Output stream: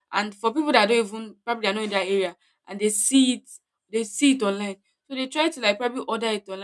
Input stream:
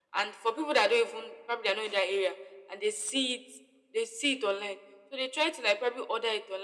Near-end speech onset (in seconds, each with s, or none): none